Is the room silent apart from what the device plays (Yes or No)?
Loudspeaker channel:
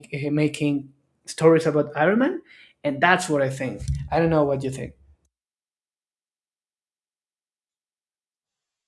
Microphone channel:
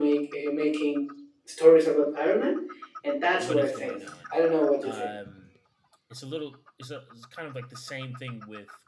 No